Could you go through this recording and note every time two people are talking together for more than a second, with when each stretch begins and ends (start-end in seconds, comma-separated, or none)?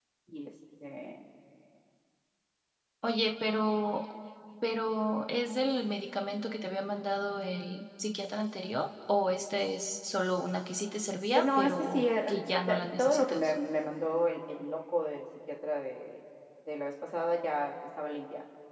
11.3-13.5